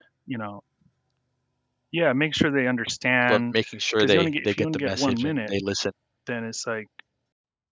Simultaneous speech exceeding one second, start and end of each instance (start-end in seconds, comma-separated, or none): 4.0-5.5